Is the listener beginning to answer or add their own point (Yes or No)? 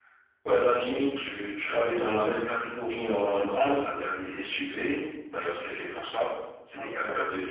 No